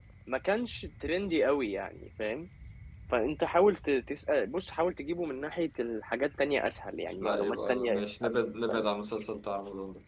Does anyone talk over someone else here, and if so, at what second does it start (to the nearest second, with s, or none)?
7 s